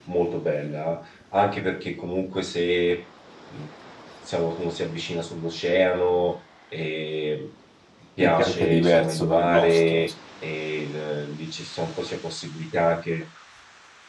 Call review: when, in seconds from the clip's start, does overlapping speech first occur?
8.2 s

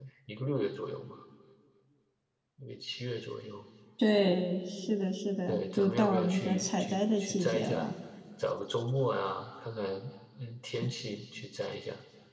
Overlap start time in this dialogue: 5.5 s

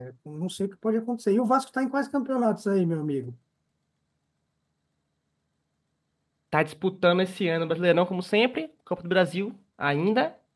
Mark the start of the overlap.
none

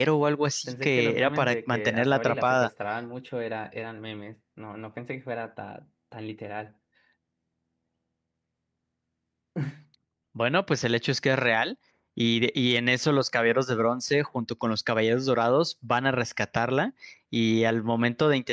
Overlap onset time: 0.7 s

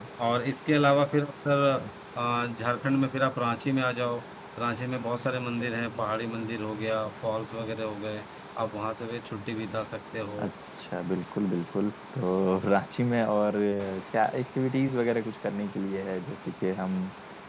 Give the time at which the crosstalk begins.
none

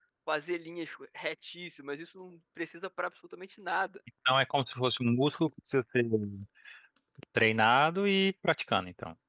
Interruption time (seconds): none

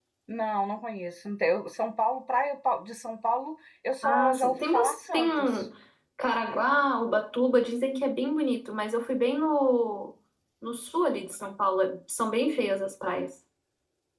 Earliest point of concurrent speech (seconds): 4.0 s

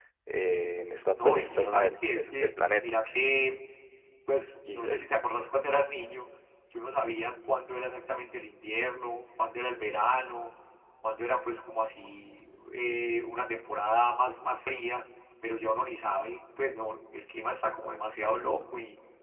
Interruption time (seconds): 1.2 s

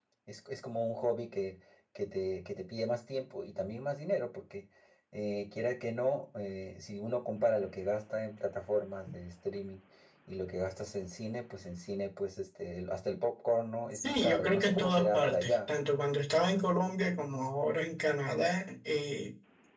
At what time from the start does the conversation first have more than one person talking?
13.9 s

